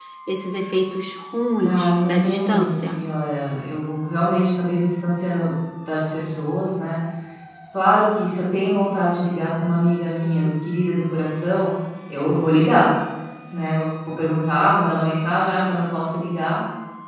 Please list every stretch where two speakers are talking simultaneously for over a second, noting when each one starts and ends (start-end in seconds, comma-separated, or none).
1.6-3.0